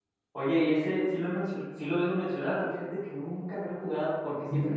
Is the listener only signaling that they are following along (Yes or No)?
Yes